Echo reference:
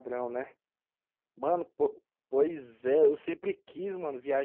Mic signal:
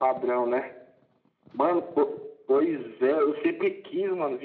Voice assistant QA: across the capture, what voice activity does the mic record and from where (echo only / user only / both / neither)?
echo only